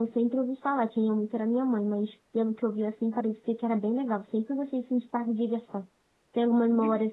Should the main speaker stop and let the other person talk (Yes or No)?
No